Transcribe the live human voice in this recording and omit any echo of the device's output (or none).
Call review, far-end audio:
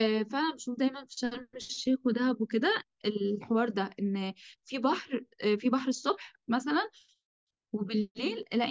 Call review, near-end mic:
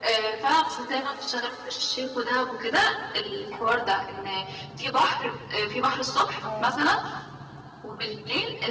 اه